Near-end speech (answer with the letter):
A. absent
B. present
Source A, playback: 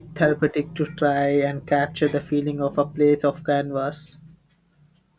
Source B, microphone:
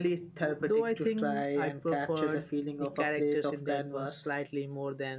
B